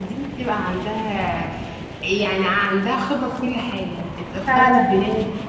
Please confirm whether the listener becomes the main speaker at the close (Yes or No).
No